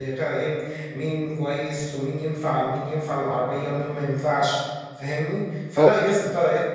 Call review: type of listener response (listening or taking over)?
listening